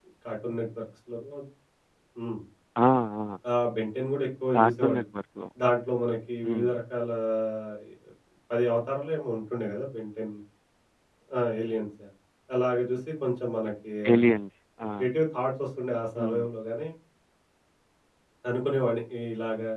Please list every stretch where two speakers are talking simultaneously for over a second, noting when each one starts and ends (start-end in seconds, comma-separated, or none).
none